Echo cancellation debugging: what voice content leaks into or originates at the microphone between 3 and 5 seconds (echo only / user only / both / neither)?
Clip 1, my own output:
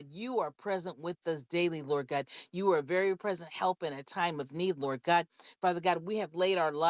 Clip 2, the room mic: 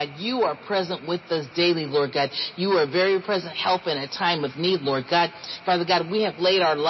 echo only